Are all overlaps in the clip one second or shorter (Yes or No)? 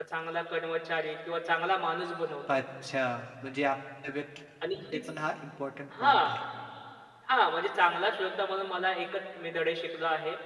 Yes